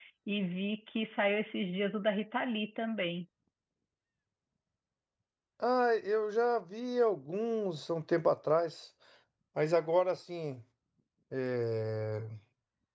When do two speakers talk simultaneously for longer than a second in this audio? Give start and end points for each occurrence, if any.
none

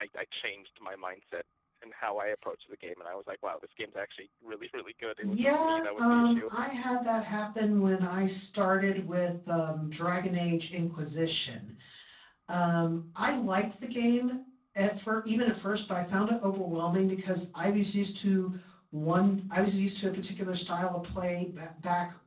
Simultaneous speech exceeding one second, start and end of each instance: 5.2-6.5

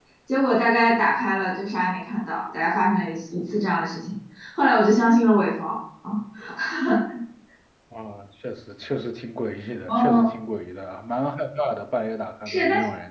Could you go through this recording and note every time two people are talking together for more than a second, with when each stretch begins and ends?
none

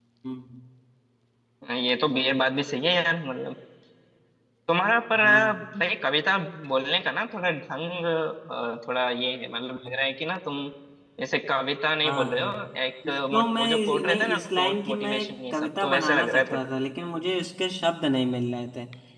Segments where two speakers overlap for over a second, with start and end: 13.1-16.6

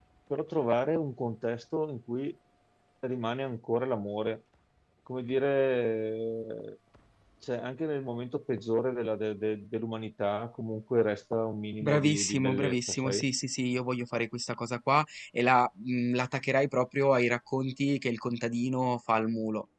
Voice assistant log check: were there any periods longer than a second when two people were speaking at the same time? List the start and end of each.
11.8-13.3

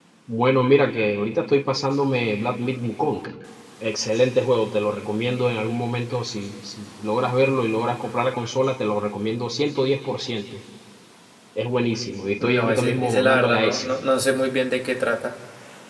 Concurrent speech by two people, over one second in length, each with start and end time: 12.4-13.9

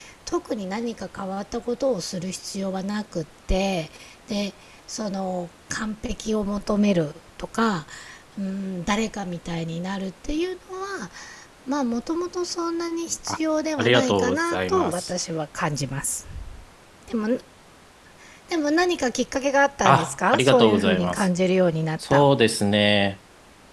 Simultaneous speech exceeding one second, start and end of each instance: 13.8-15.1, 19.9-21.3

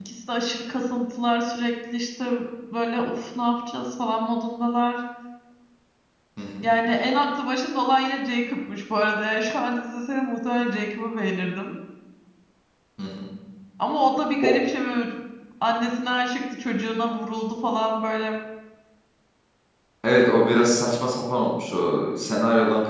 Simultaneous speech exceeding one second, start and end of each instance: none

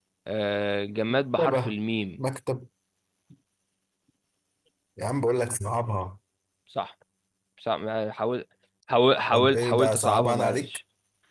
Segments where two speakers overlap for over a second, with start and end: 9.3-10.8

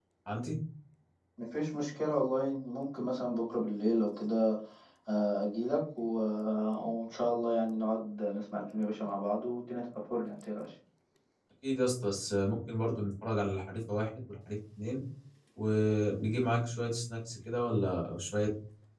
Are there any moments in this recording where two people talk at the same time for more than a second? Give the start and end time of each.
none

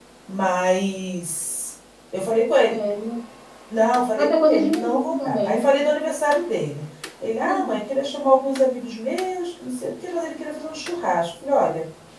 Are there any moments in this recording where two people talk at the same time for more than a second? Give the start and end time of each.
4.2-5.6

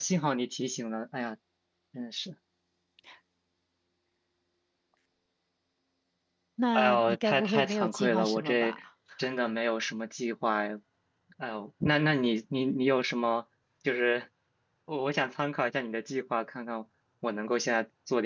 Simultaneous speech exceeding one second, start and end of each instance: 6.7-8.8

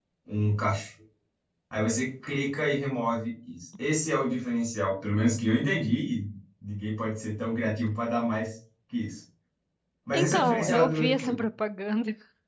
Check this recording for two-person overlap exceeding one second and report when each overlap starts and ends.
10.1-11.4

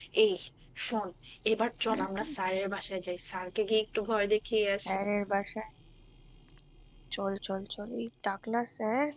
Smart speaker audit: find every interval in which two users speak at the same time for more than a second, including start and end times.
none

